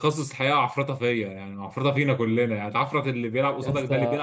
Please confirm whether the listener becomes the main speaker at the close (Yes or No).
No